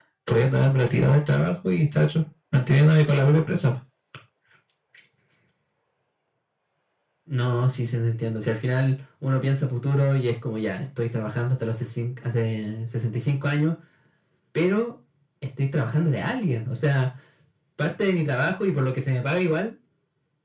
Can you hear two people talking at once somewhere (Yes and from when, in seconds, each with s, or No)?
No